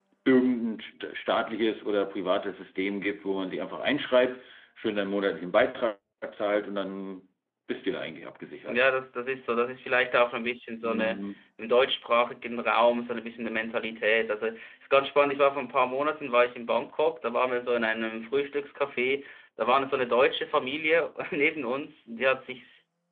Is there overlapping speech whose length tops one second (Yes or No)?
No